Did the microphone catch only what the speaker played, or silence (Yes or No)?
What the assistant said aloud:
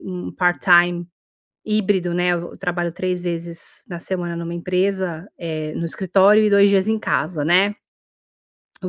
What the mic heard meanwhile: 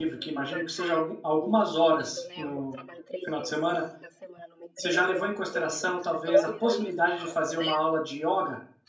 No